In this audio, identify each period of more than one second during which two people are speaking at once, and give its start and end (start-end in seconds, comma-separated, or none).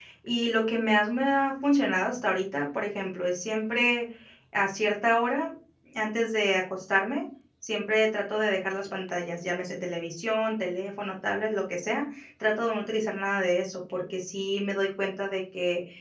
none